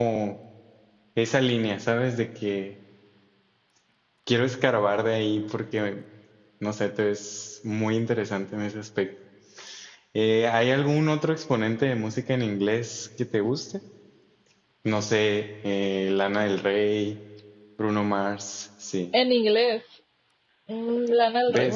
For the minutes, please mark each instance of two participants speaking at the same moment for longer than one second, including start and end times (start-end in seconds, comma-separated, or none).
none